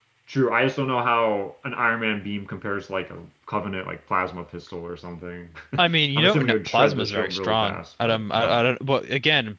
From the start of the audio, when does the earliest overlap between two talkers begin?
6.2 s

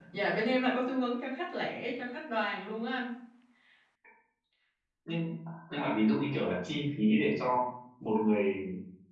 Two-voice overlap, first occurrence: none

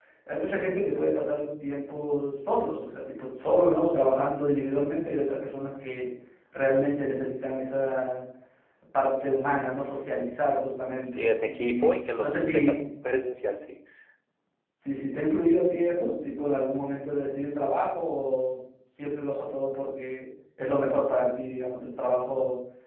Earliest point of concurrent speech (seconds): 11.1 s

